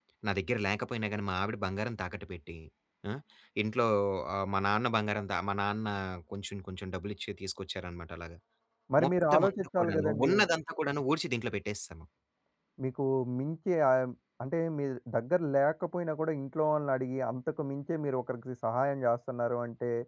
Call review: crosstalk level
present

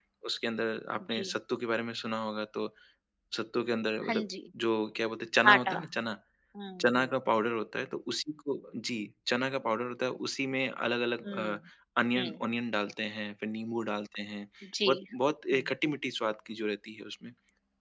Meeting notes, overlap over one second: none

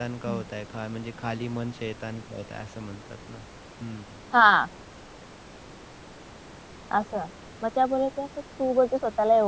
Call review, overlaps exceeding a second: none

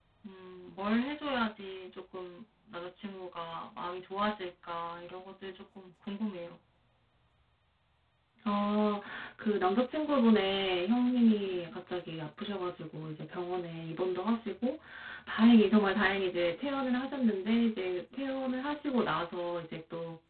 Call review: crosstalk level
none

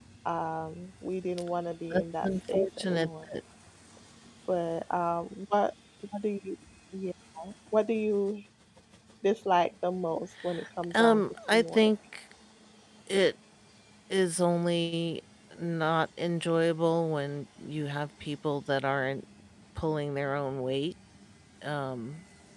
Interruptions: present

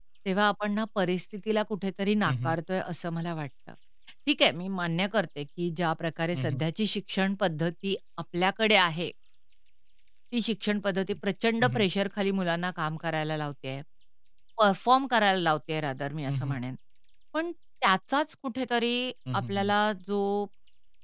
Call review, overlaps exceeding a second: none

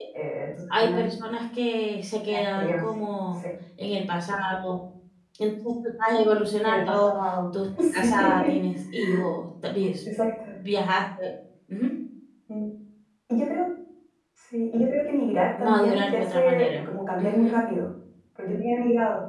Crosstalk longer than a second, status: present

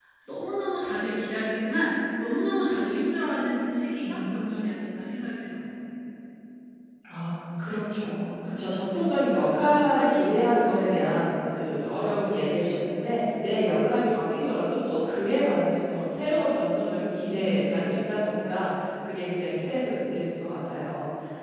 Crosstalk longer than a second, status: none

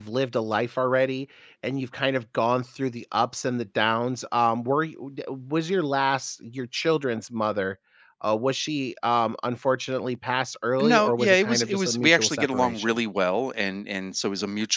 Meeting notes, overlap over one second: present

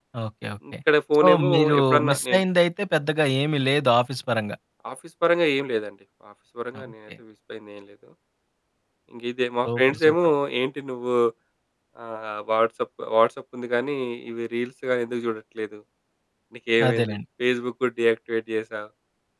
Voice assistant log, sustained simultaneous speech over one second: present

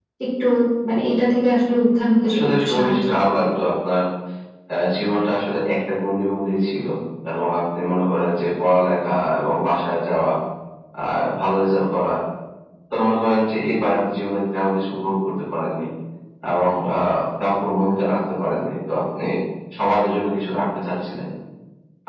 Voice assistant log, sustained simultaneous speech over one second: present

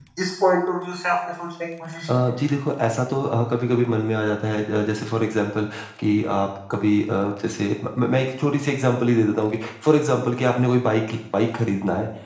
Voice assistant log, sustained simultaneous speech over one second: none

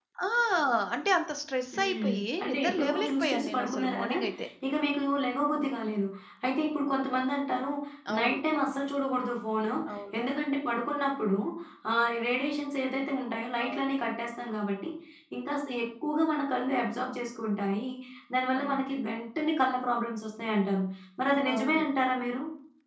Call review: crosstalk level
present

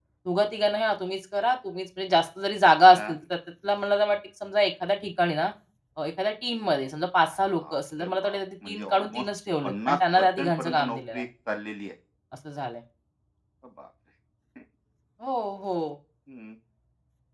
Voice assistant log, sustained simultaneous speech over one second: present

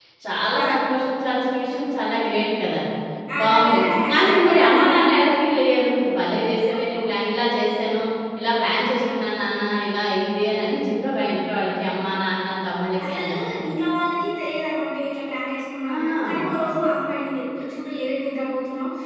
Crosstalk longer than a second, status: present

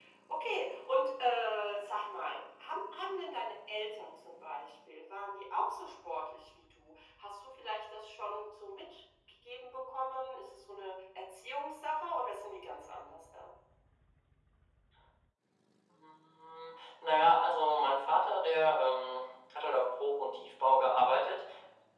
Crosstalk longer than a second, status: none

